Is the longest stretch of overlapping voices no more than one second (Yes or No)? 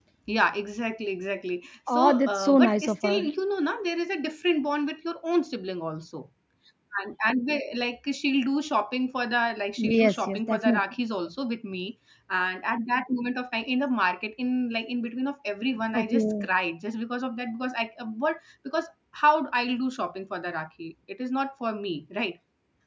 No